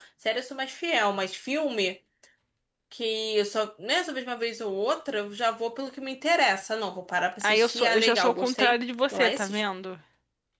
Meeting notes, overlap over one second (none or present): present